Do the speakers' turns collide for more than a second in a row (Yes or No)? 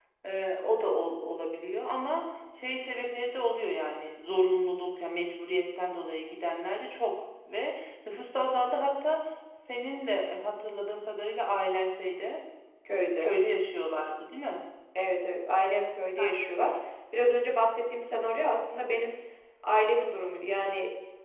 No